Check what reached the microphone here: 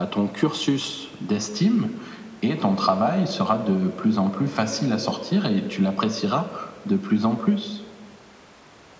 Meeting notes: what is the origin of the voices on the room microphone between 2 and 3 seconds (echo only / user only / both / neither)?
echo only